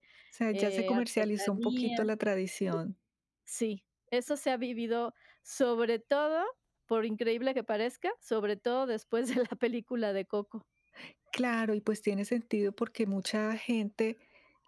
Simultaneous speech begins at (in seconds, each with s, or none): 0.5 s